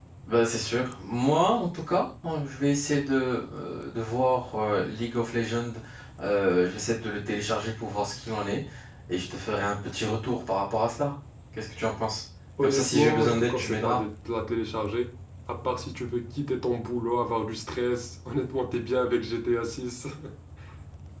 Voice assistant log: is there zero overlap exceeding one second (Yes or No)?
No